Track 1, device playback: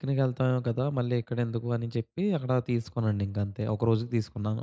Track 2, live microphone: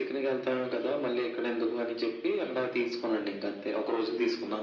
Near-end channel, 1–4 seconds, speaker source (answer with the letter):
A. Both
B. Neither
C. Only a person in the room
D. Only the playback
D